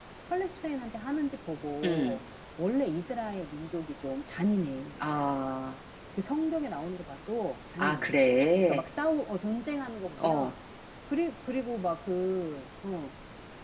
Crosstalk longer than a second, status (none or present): none